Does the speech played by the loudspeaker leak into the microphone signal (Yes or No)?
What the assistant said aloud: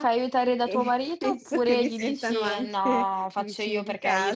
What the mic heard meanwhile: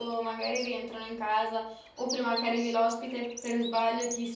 No